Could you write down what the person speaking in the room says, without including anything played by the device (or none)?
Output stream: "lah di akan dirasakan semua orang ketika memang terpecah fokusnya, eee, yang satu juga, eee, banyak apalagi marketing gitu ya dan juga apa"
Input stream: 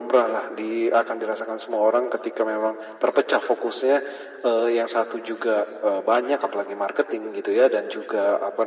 none